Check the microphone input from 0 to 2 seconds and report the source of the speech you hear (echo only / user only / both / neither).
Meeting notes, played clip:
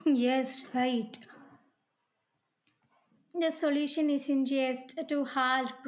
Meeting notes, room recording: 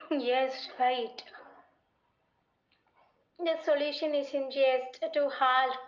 echo only